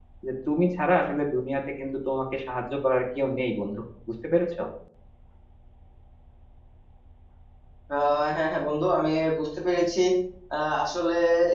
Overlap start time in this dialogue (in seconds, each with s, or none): none